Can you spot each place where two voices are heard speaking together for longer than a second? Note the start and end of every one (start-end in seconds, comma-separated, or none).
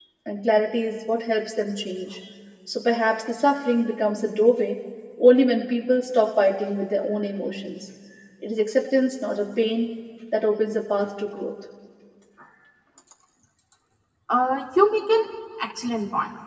none